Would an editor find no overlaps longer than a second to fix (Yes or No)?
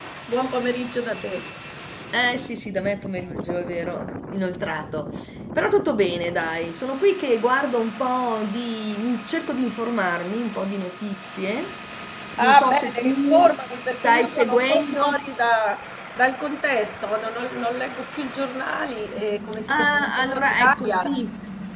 No